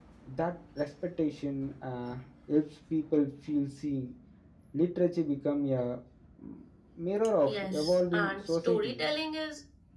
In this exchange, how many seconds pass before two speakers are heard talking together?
7.4 s

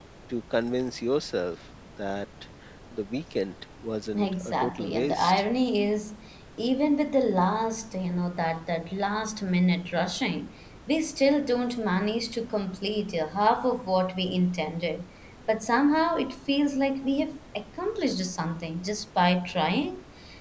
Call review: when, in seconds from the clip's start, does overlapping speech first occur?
4.1 s

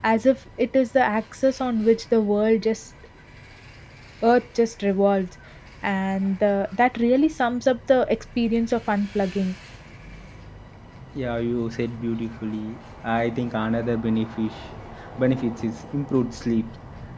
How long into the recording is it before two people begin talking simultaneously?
none

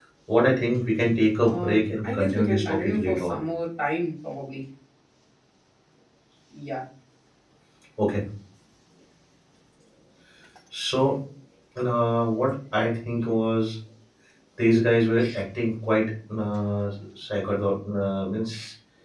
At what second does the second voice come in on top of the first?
1.4 s

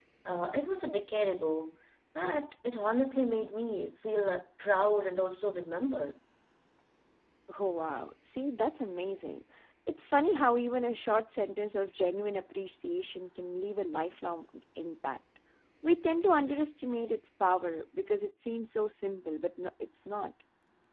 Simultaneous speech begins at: none

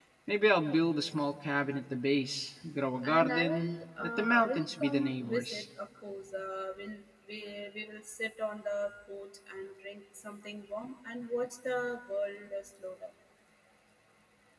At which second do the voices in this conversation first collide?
3.0 s

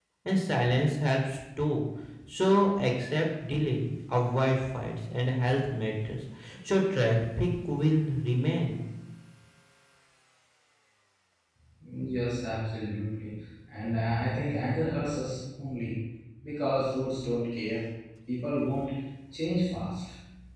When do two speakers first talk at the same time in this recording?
none

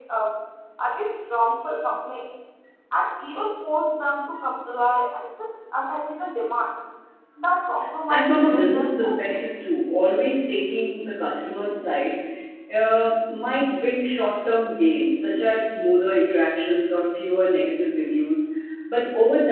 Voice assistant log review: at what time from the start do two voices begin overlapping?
8.1 s

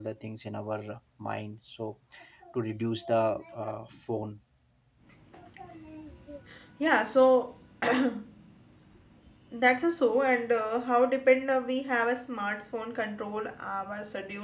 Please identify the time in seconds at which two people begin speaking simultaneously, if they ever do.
none

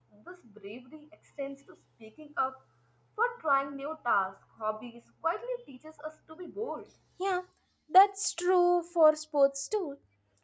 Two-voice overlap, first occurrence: none

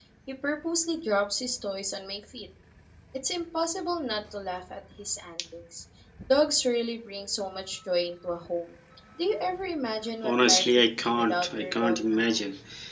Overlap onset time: 10.2 s

